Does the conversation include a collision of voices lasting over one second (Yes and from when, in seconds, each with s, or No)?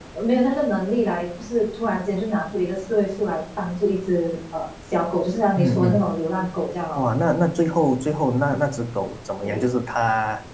No